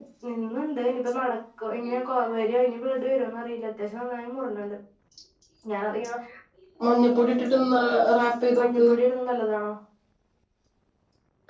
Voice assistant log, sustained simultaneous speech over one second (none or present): none